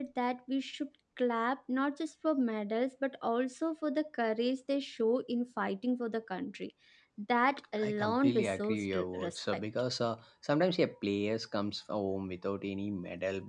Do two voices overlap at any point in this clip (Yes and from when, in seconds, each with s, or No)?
Yes, from 7.8 s